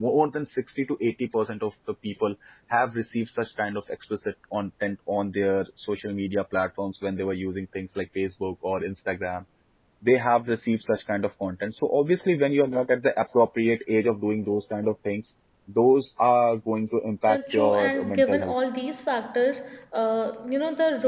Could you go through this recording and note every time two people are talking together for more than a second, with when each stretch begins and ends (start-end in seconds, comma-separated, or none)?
17.3-18.5